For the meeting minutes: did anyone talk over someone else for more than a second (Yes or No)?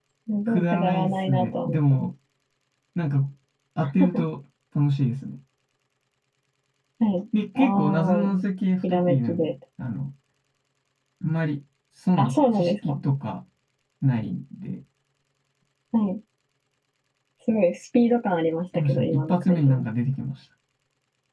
Yes